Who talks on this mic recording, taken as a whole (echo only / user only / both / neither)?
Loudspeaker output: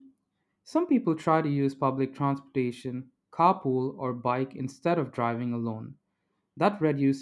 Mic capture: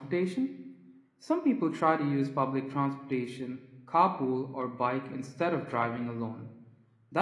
echo only